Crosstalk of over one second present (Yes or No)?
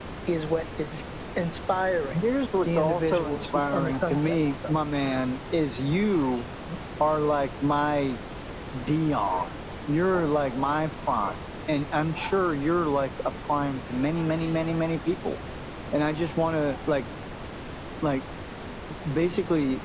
Yes